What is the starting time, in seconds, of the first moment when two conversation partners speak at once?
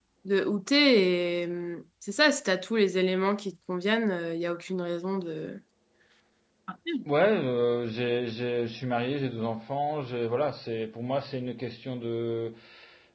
none

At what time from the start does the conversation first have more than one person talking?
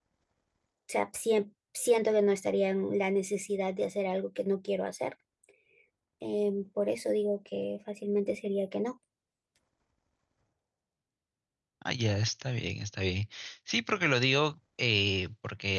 none

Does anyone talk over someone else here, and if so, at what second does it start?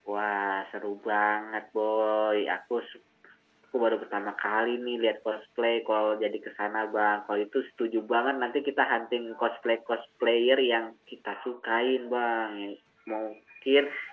none

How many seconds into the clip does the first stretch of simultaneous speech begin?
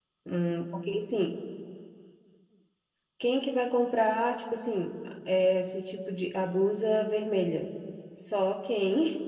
none

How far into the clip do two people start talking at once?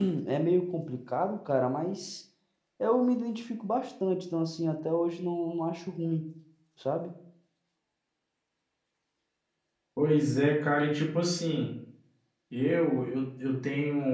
none

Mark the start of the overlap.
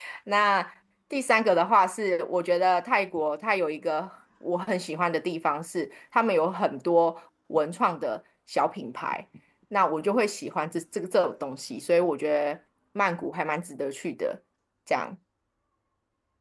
none

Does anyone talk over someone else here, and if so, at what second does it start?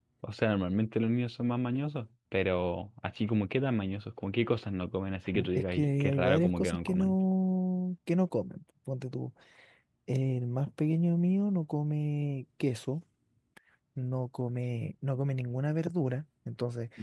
5.3 s

